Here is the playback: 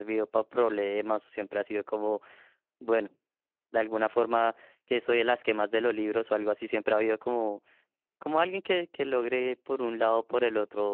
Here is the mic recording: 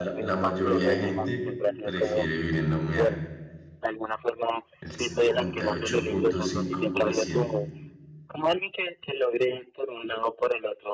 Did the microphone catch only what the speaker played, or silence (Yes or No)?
No